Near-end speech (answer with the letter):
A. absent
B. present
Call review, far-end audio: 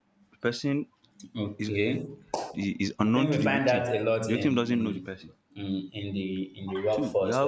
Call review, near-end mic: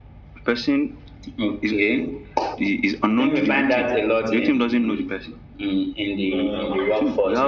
B